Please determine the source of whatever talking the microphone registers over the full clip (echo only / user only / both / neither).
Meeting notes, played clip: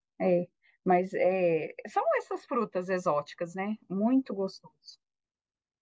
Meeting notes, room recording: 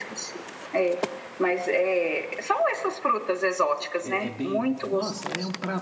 both